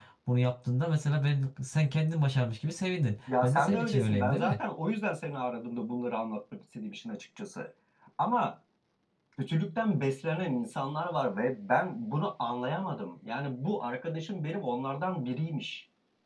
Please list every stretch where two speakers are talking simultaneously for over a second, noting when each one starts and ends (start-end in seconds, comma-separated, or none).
3.3-4.5